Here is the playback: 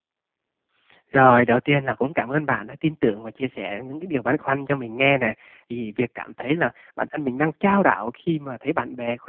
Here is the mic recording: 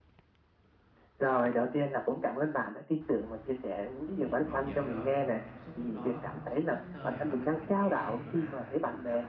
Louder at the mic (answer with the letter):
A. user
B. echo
B